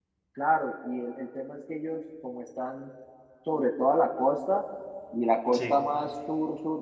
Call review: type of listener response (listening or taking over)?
listening